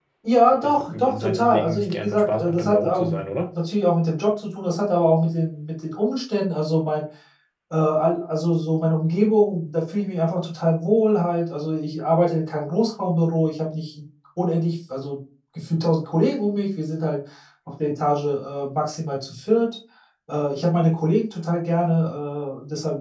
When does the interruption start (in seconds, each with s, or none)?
0.6 s